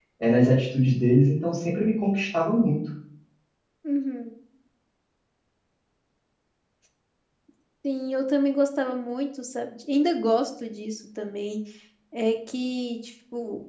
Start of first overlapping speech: none

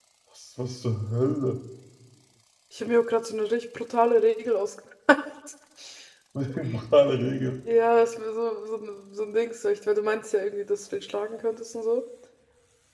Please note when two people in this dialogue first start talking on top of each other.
none

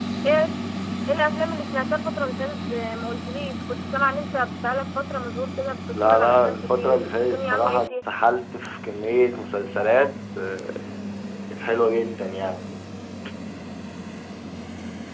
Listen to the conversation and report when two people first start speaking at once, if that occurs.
5.9 s

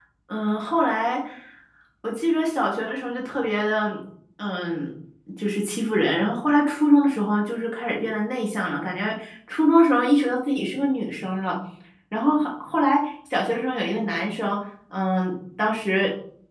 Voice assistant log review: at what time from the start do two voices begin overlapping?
none

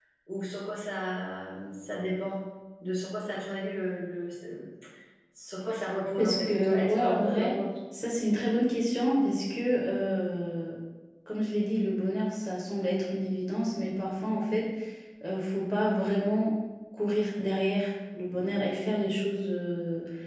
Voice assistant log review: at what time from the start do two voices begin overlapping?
6.2 s

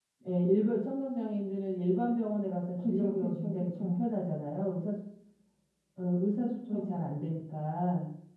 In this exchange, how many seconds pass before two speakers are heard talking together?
2.8 s

